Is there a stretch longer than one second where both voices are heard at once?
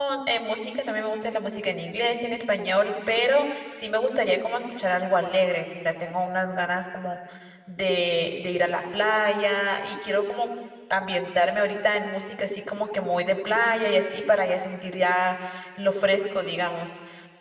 No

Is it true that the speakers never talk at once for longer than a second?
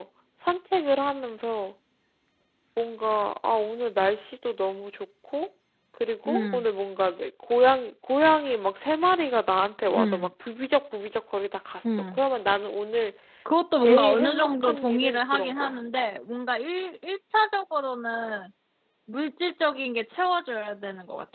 No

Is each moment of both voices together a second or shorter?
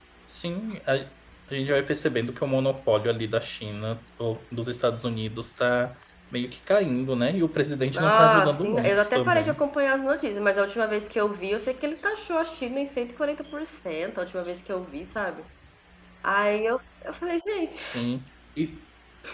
No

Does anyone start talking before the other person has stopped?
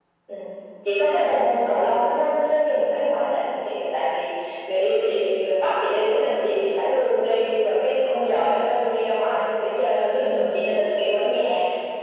No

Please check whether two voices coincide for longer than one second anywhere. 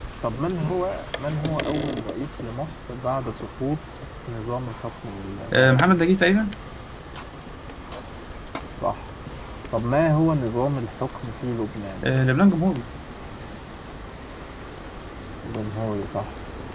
No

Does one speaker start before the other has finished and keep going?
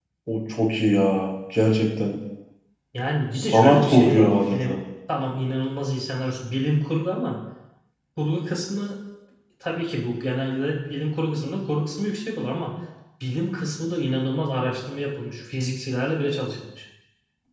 Yes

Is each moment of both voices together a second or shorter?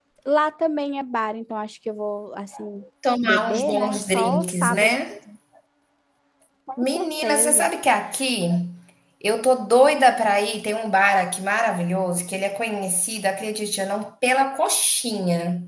No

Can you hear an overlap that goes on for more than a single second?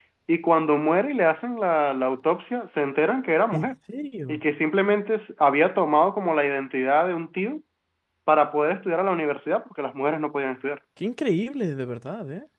No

